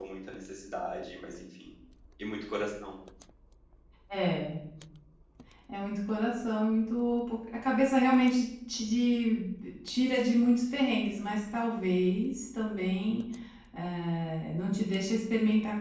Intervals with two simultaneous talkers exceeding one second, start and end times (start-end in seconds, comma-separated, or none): none